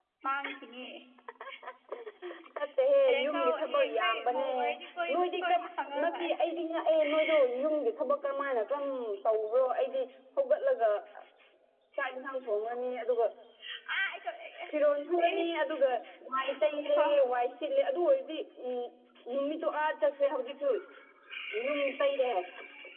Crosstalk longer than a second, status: present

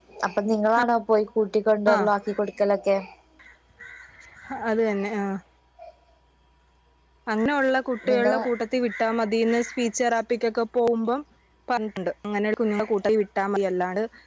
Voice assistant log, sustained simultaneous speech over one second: none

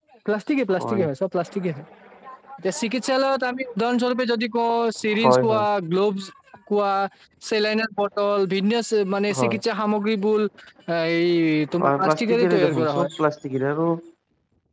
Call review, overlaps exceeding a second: present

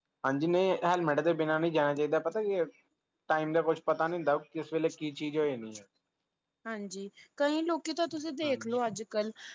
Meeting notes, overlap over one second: none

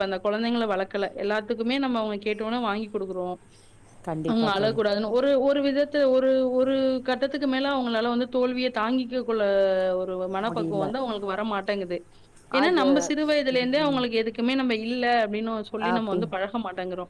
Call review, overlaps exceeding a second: none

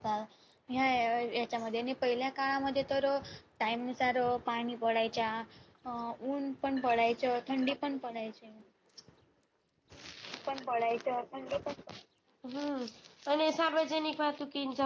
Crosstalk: none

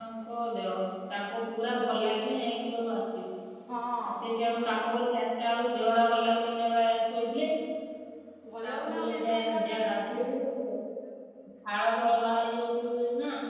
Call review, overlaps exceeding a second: present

